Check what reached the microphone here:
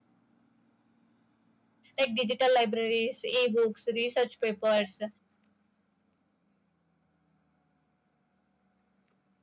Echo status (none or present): none